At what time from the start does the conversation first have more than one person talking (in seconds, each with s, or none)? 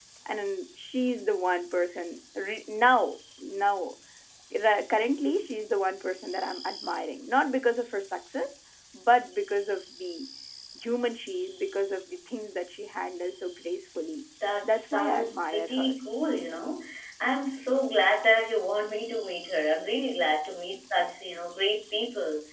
14.4 s